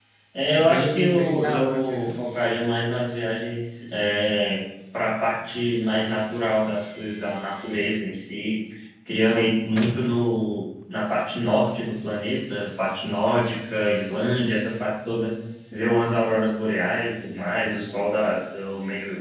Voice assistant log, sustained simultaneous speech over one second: present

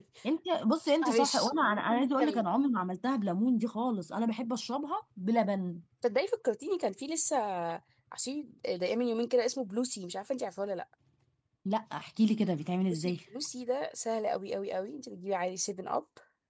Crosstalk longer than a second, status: present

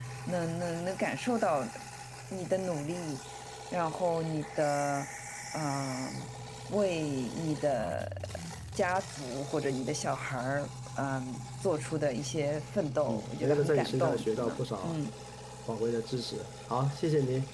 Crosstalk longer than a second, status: present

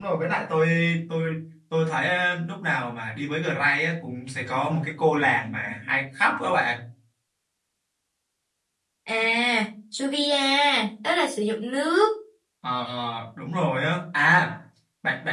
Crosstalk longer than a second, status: none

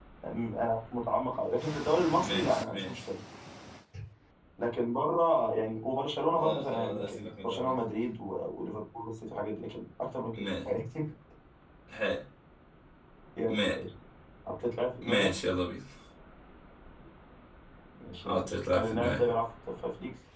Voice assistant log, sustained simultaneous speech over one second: present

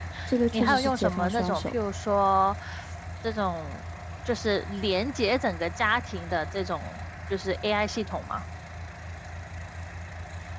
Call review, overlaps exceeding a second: present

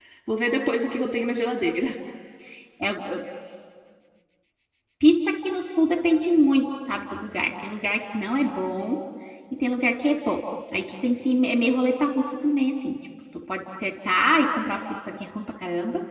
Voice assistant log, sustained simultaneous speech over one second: none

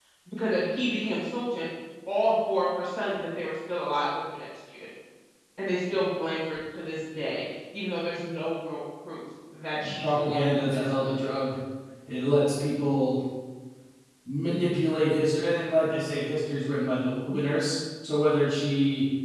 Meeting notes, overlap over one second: present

